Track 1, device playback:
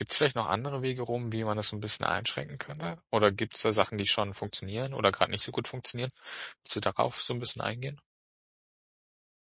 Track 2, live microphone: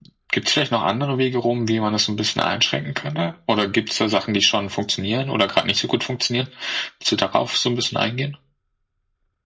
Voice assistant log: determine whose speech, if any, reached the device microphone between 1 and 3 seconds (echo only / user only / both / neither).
echo only